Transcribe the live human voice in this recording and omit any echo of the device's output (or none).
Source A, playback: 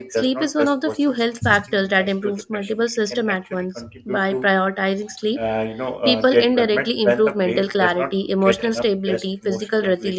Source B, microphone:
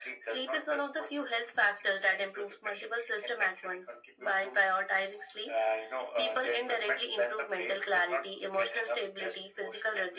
none